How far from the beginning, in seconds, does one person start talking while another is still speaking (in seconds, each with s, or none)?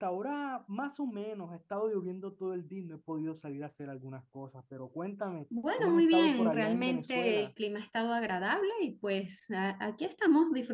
5.8 s